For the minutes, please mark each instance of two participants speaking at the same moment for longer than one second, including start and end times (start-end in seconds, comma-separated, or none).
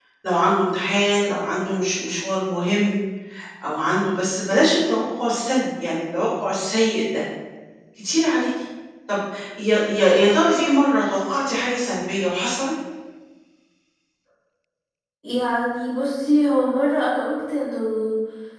none